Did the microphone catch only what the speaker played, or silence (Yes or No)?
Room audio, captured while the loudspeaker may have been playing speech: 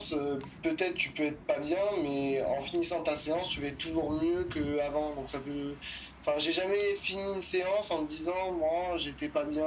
Yes